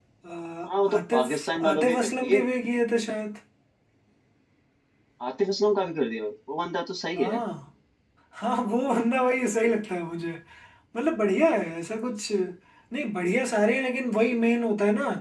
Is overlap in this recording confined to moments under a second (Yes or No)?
No